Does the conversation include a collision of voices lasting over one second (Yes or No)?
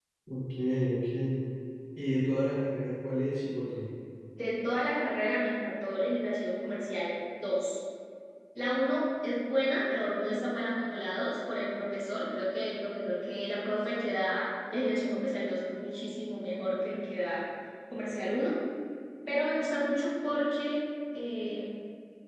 No